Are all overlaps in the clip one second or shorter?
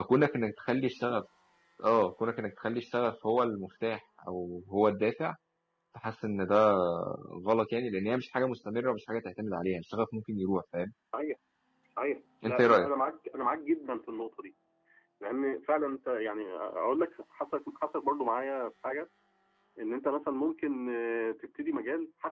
Yes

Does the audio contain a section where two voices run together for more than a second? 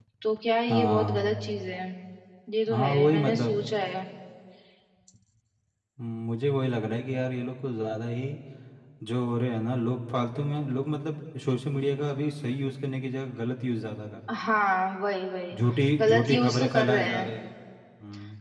Yes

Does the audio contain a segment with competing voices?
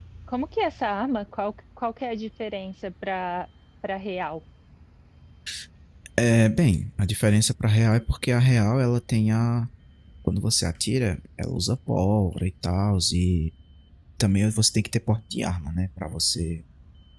No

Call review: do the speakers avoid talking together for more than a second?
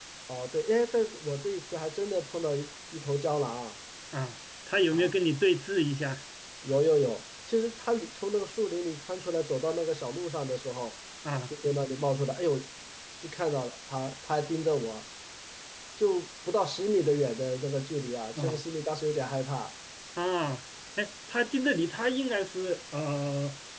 Yes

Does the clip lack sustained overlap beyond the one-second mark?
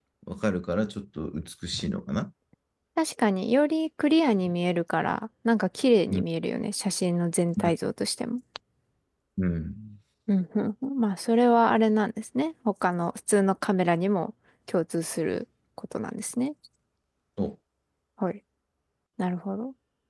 Yes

